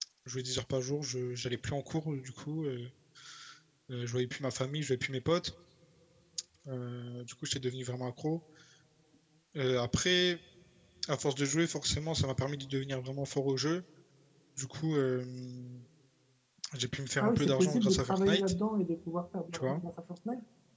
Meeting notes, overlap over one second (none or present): present